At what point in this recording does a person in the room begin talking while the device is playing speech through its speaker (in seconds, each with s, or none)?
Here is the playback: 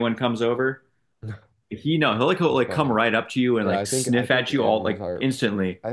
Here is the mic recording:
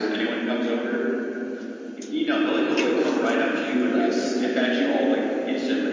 none